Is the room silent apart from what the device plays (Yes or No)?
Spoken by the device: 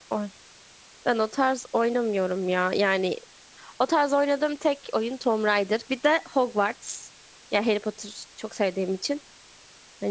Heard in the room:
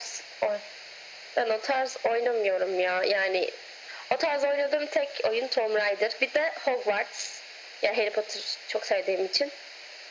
Yes